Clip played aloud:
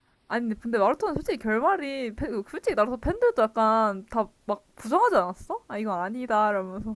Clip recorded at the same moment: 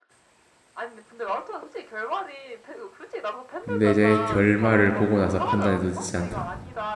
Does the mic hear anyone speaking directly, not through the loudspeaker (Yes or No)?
Yes